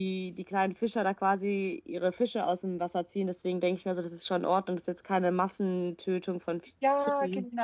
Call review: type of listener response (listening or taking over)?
taking over